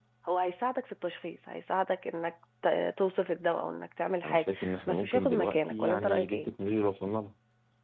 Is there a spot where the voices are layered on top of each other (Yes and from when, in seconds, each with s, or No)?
Yes, from 4.2 s